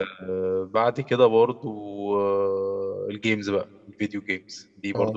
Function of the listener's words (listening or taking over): listening